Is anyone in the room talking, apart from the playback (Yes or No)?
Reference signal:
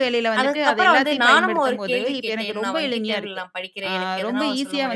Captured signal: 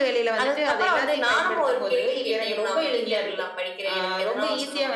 No